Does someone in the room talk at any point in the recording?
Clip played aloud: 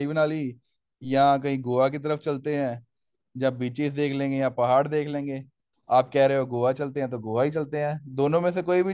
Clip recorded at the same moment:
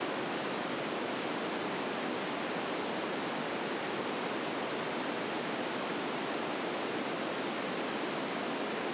No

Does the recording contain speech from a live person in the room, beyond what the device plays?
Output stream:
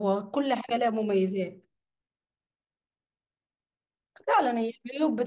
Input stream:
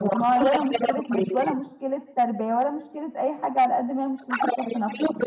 Yes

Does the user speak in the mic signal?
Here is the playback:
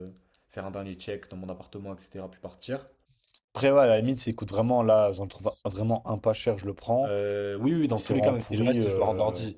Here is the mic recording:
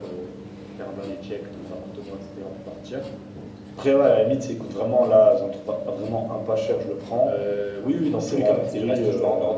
No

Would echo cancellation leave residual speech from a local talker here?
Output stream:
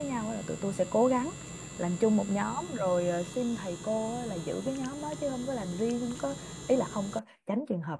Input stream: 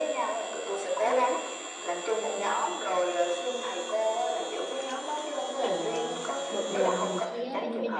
Yes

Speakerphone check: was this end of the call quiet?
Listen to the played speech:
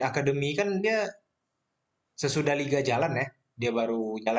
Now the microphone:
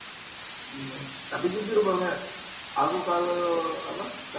No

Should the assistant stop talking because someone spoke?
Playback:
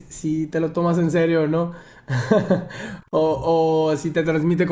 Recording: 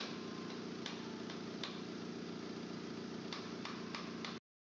No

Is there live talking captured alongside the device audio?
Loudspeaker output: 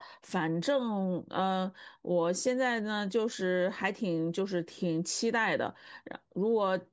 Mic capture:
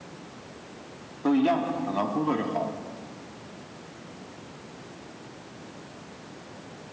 Yes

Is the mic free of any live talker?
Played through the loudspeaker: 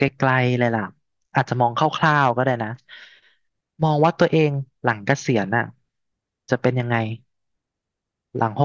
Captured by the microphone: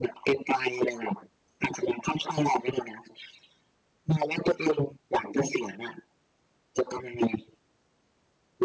Yes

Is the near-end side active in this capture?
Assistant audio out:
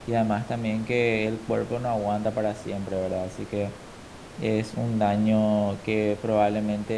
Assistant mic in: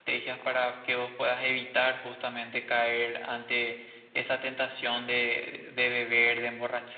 Yes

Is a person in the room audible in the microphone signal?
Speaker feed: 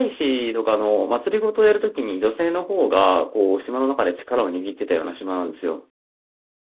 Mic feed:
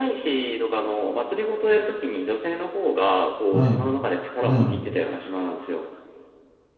Yes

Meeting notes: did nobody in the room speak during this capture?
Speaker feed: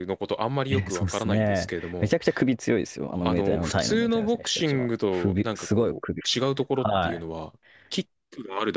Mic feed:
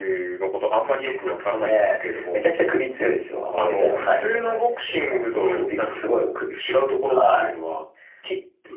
Yes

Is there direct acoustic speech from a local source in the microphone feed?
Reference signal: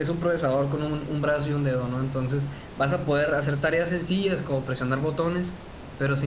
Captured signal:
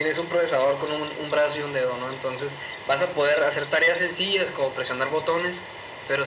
No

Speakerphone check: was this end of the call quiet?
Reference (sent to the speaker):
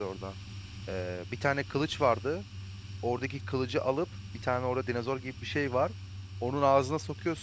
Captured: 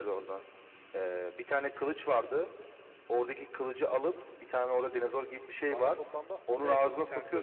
No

